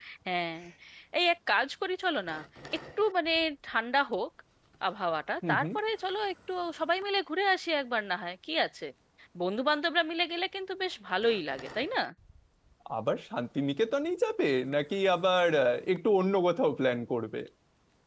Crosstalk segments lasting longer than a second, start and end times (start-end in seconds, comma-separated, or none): none